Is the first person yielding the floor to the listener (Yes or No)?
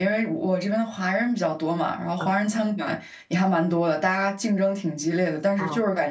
No